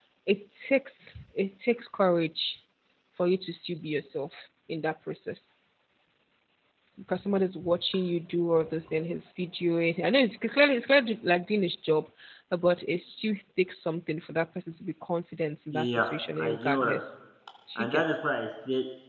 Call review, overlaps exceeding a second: present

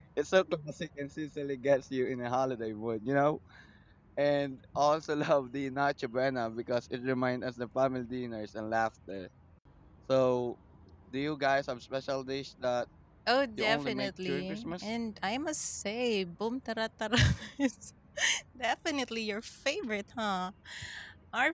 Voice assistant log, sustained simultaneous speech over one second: present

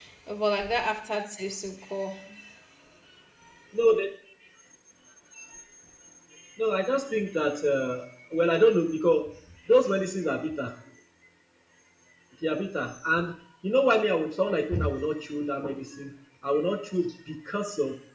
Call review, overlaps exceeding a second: none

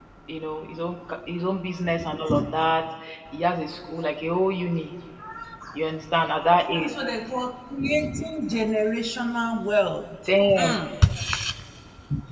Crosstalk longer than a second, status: none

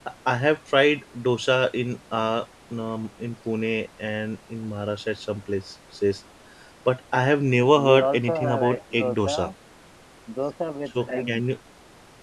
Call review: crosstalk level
present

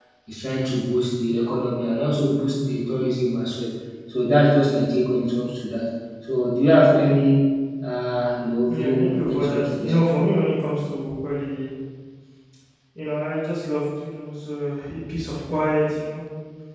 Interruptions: present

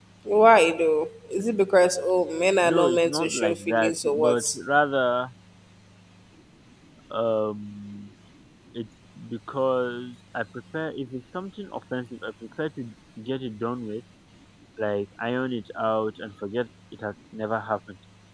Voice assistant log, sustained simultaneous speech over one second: present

